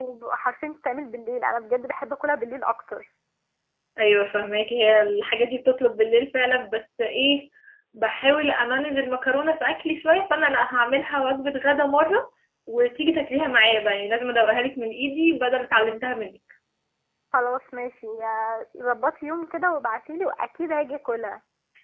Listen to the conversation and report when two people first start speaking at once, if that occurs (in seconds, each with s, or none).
none